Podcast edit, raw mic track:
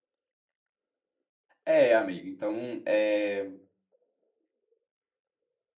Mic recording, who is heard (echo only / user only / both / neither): user only